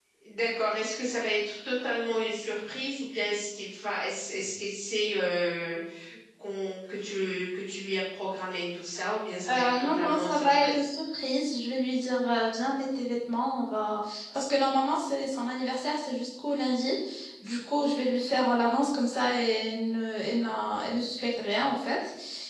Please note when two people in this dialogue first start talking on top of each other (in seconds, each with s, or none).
9.5 s